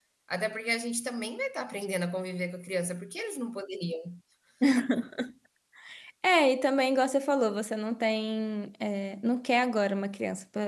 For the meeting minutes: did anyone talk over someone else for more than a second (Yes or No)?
No